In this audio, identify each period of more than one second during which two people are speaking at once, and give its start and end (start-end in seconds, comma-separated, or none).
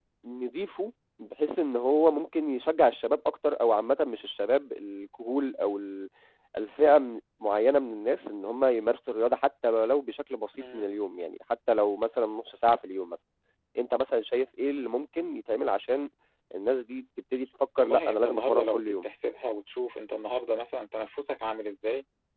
17.8-19.0